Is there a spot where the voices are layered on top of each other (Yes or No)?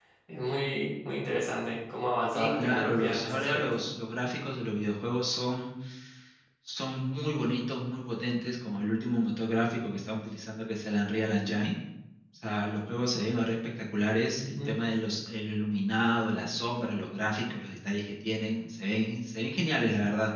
Yes